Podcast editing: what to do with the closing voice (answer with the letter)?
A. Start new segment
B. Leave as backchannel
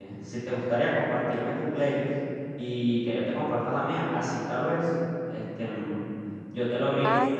B